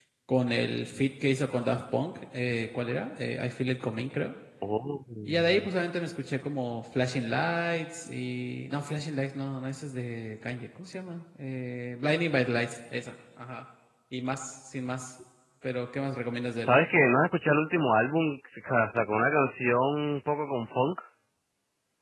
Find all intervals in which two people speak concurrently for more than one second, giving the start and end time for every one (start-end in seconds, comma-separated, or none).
none